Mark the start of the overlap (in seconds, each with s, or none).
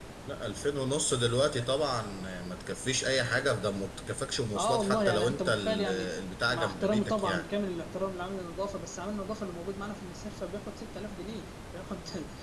4.5 s